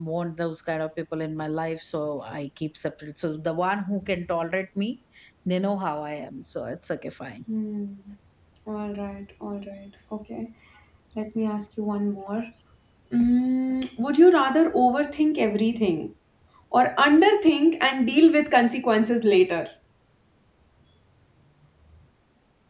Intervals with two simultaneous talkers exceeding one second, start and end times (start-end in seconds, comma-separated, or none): none